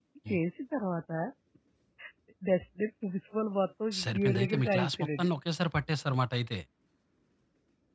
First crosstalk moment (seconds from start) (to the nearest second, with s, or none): 4 s